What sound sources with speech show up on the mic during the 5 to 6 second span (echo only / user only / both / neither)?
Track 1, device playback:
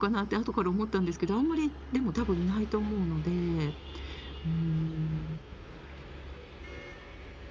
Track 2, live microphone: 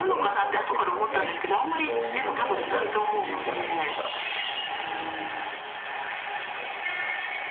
echo only